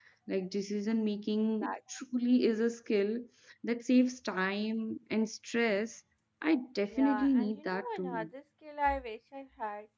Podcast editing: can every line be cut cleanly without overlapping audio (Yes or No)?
No